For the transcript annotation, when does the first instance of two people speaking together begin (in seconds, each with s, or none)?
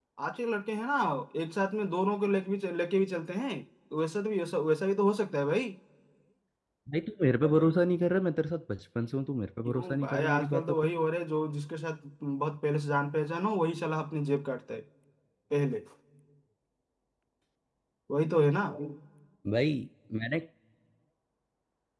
9.7 s